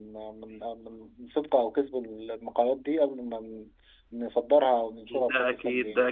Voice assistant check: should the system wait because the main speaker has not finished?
No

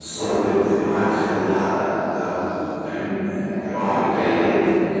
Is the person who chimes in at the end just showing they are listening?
Yes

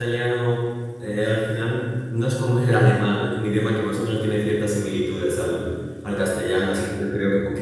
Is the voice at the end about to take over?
No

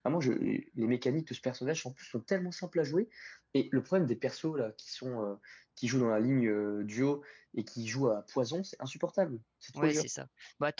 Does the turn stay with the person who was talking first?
No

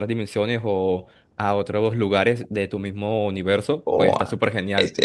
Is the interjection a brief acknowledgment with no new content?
No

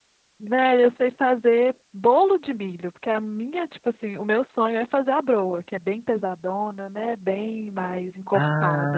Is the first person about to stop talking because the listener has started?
Yes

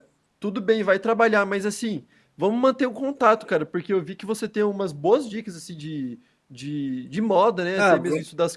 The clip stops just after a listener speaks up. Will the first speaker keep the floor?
Yes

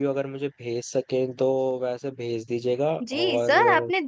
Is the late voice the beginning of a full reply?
Yes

